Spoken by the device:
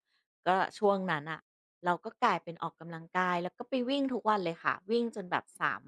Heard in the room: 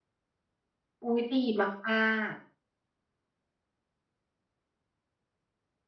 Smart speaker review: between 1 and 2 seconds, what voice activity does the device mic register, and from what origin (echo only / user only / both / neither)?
user only